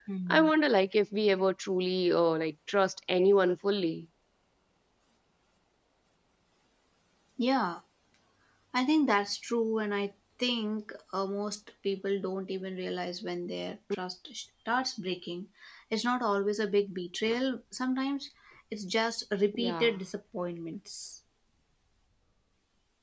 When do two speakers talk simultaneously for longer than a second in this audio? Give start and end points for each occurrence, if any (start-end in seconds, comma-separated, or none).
none